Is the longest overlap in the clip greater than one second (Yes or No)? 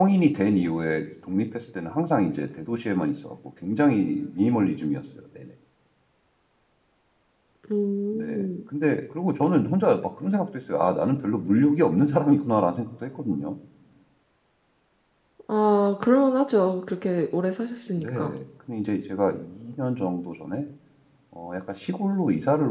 No